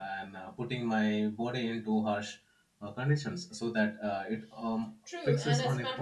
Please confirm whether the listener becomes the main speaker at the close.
Yes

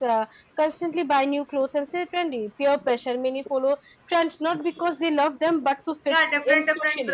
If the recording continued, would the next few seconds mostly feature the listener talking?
Yes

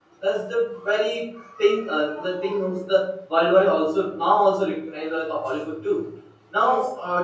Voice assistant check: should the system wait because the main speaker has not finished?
Yes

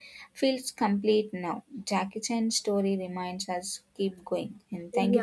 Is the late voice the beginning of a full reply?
Yes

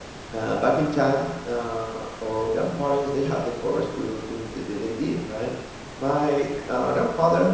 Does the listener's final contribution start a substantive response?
No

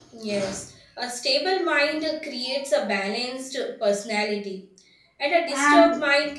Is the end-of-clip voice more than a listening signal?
No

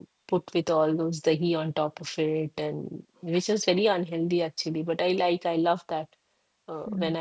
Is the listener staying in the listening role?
Yes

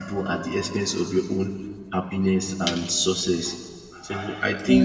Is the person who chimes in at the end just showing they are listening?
Yes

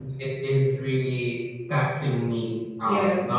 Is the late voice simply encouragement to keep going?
Yes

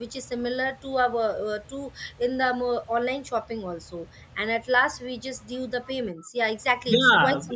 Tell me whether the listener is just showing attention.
No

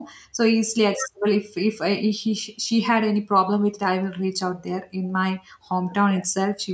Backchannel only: Yes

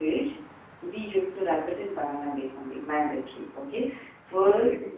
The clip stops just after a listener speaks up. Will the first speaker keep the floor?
Yes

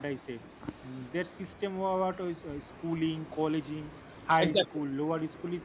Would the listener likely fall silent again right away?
Yes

